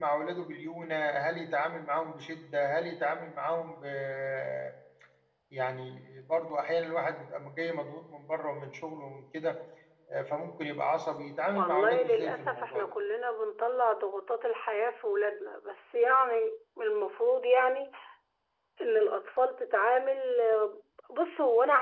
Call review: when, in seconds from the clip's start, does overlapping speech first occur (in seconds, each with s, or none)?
11.5 s